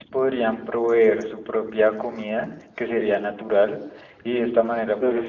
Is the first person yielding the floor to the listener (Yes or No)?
No